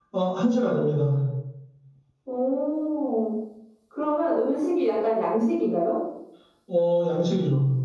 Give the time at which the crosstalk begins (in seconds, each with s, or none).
none